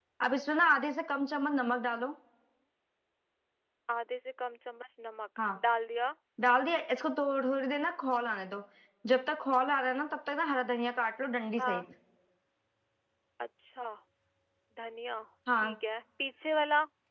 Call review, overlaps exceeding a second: none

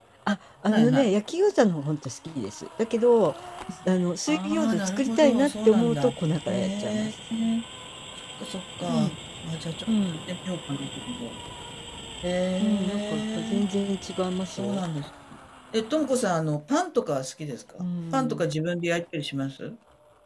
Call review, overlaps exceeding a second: present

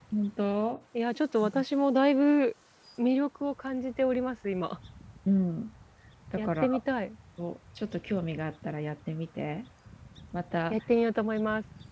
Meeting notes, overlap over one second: none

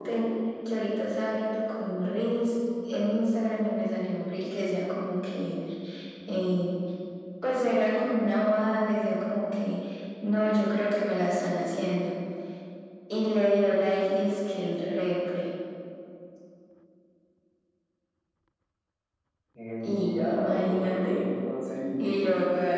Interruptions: present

